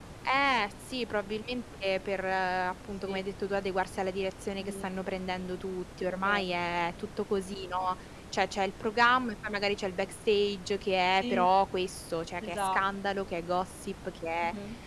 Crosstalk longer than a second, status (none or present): none